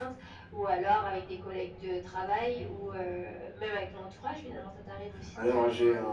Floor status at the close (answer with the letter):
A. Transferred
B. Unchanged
A